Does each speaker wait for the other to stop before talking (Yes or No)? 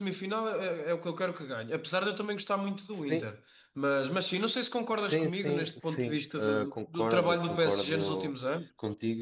No